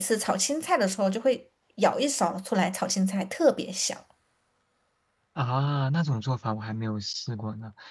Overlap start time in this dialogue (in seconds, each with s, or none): none